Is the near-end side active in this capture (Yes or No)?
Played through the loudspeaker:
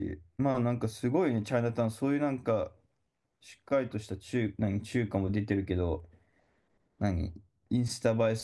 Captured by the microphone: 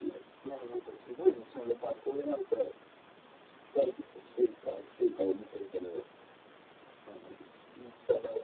No